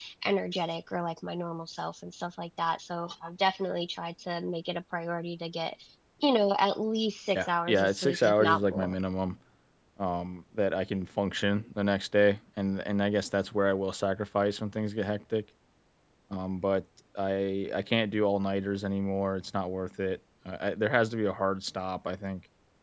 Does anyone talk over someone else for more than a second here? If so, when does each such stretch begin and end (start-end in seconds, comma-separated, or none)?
7.3-8.9